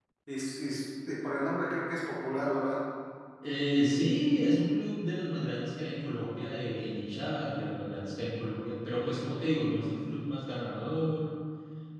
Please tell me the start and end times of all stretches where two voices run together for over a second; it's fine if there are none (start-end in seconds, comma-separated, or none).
none